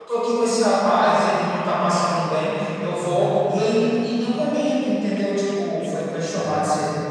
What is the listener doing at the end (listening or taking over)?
listening